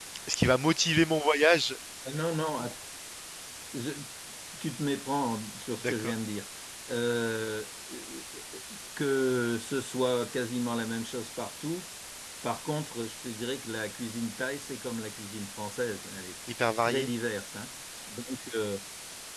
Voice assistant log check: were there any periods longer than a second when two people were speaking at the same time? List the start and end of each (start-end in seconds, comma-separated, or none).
none